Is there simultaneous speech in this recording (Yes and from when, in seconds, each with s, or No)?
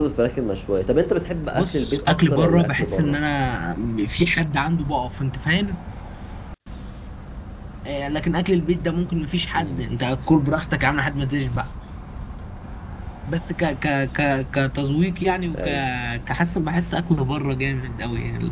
Yes, from 1.5 s